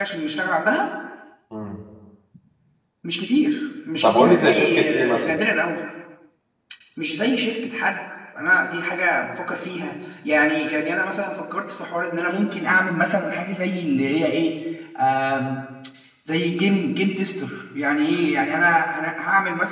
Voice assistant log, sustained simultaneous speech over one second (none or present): present